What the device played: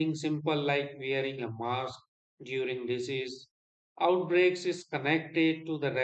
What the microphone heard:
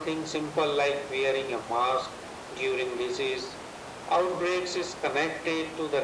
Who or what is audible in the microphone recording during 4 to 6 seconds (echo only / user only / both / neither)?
echo only